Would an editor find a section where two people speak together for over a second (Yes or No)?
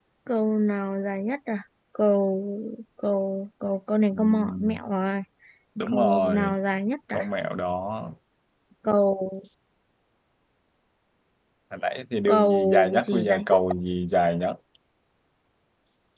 Yes